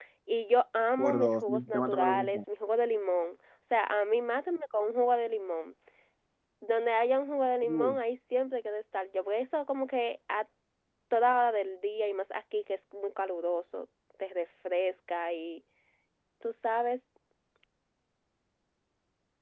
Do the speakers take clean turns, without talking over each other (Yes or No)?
No